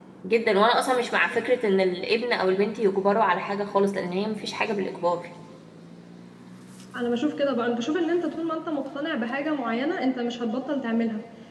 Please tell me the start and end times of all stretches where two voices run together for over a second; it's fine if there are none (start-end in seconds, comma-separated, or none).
none